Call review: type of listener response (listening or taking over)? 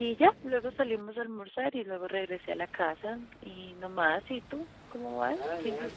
taking over